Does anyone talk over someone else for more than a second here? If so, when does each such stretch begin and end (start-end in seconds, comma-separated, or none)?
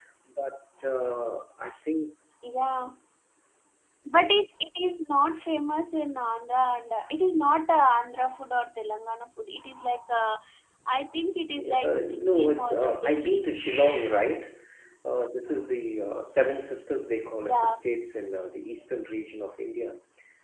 11.4-13.4